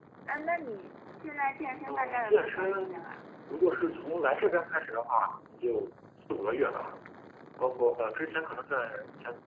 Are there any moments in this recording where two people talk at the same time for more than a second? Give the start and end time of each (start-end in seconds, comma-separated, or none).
1.9-3.1